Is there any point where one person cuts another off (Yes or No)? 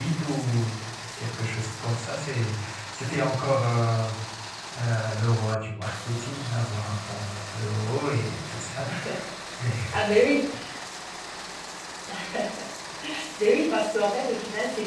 No